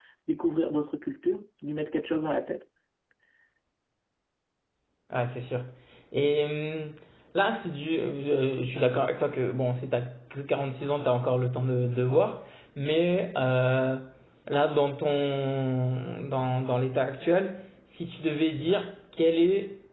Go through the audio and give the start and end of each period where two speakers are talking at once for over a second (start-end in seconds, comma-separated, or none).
none